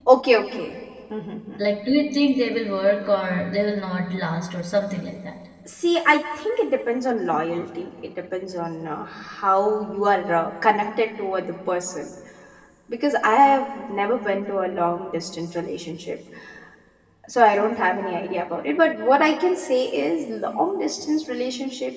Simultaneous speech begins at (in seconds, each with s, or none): none